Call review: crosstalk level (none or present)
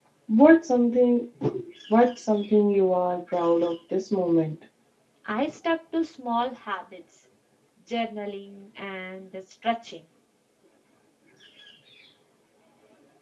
none